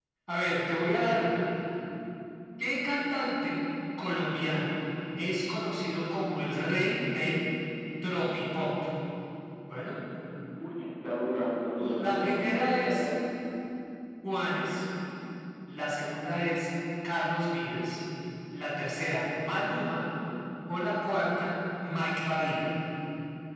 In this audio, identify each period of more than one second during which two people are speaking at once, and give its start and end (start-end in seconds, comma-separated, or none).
11.8-13.1